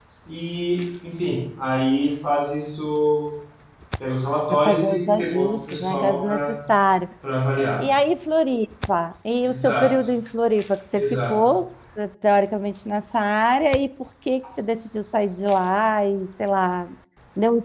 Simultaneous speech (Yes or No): Yes